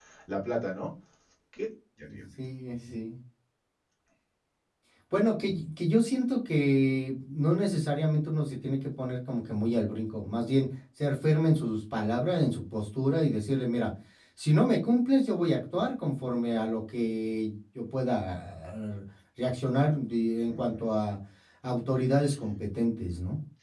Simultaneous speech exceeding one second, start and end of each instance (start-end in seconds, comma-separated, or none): none